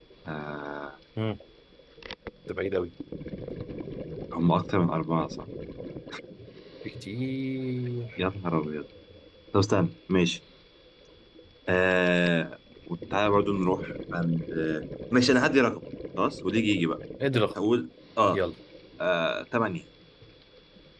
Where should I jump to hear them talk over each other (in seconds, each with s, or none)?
none